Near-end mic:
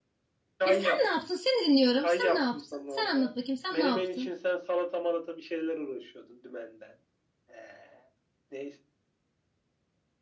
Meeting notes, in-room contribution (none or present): present